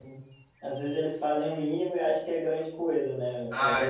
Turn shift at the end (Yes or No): No